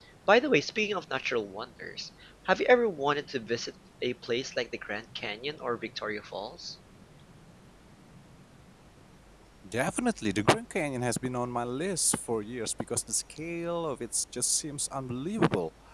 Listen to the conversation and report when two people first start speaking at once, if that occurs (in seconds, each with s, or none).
none